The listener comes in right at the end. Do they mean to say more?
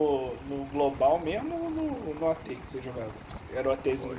Yes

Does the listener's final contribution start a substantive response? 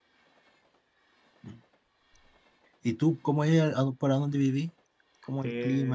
Yes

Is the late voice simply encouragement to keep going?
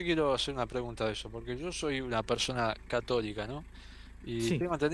Yes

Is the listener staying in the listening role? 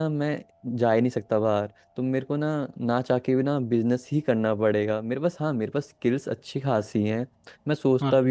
Yes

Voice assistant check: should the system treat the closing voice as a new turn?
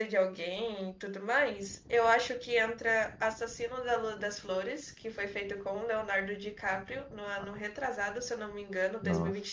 Yes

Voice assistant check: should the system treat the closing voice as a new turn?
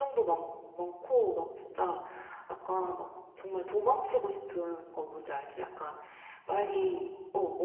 No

